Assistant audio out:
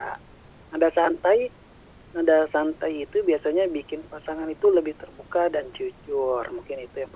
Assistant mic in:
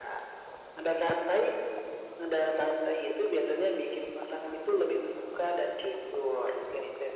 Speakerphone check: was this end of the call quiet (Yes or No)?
Yes